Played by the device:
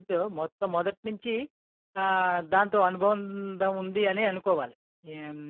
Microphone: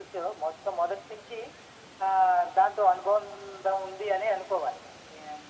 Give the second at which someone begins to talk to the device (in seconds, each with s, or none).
none